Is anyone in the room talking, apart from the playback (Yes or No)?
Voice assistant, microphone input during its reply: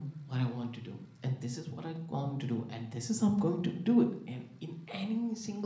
No